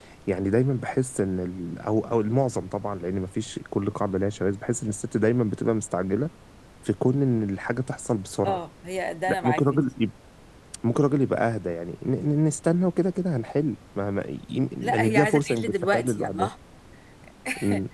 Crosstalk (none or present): present